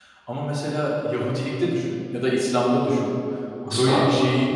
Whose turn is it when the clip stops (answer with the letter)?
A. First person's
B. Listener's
A